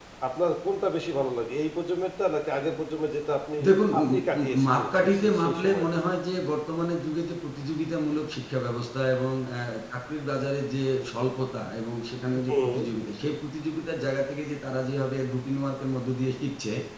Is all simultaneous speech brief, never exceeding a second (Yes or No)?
No